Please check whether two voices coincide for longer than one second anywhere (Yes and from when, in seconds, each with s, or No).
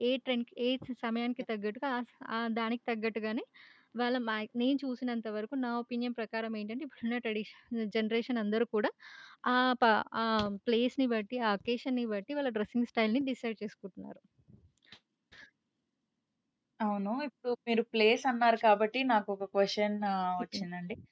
No